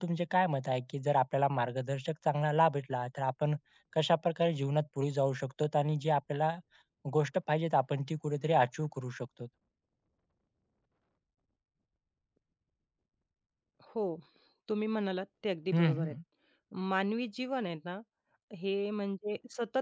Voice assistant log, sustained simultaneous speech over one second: none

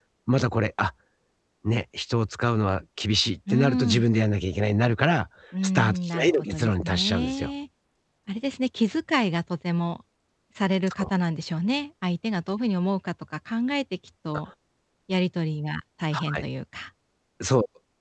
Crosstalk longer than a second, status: present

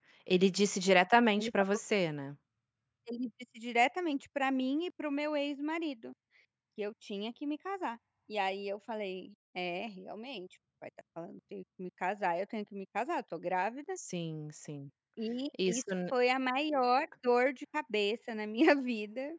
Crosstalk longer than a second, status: none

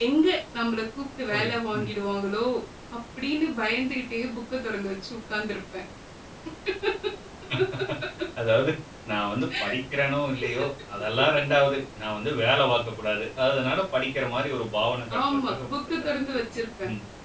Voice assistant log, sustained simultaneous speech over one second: present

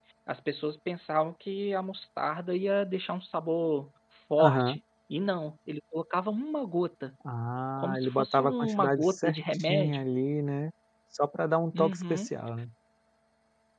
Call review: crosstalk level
present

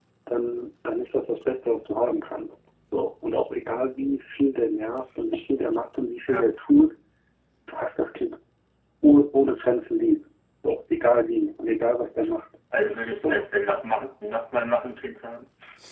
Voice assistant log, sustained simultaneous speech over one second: none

